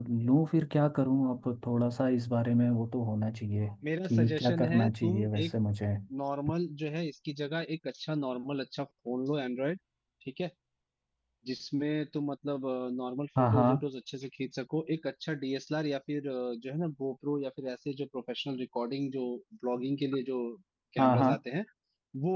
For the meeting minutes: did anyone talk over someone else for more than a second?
Yes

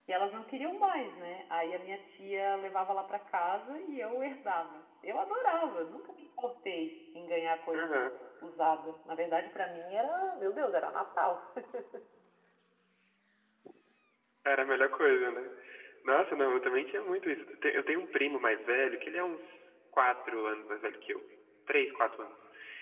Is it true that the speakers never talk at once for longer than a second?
Yes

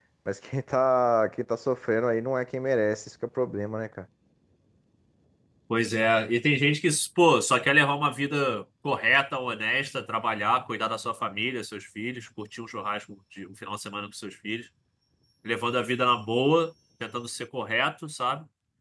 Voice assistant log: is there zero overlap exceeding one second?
Yes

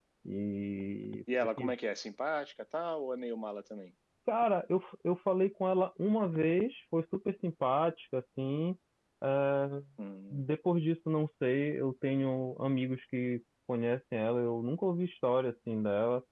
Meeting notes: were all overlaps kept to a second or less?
Yes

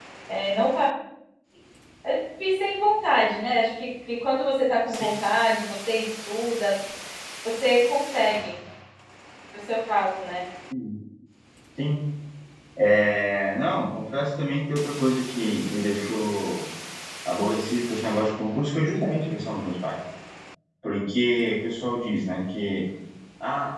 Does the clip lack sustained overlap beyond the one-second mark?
Yes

